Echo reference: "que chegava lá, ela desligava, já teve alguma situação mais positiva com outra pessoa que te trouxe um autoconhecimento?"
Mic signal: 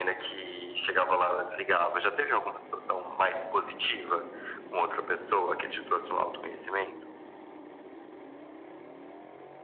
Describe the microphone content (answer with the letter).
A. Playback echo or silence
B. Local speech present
A